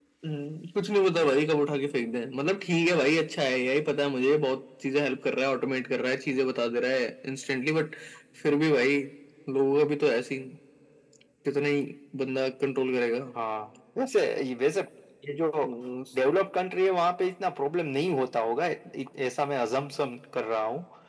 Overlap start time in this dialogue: none

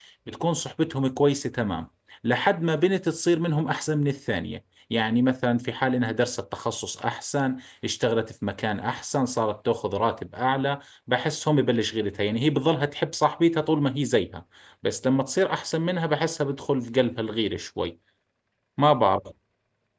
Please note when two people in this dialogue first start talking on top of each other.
none

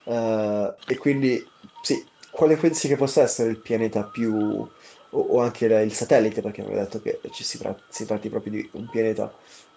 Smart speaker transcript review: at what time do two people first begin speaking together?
none

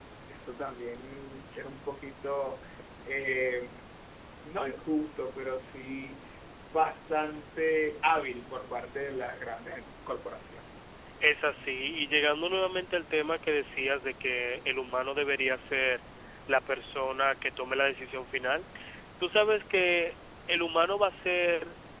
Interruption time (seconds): none

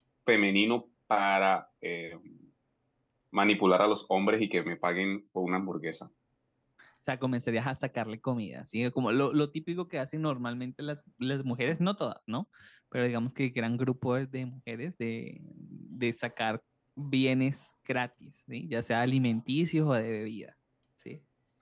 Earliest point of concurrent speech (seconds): none

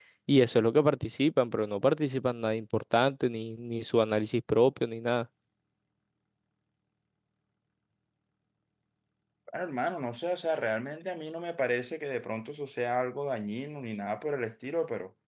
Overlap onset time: none

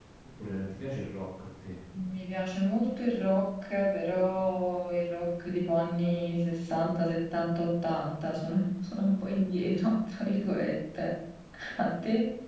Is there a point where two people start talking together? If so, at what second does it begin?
none

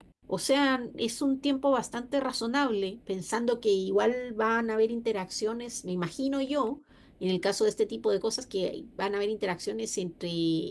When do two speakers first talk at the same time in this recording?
none

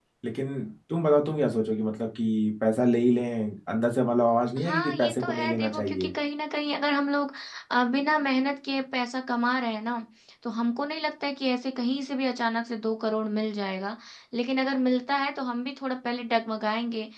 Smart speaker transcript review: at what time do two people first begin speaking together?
4.6 s

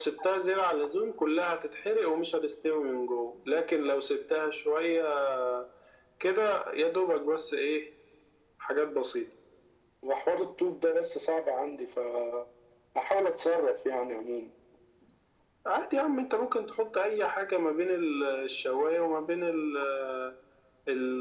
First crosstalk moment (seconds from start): none

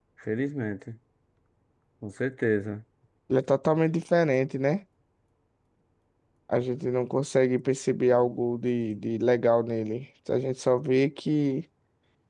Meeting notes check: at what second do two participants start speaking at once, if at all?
none

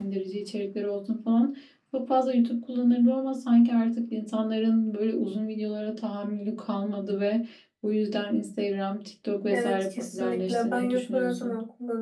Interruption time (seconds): 9.5 s

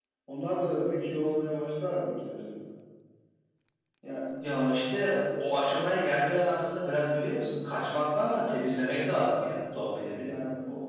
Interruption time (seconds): none

